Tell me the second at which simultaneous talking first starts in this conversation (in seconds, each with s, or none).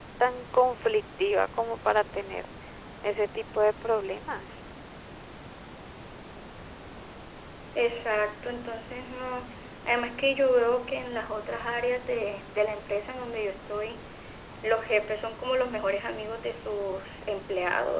none